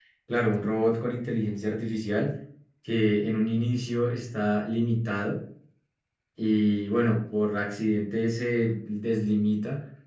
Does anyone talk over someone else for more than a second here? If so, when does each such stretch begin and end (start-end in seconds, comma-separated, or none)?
none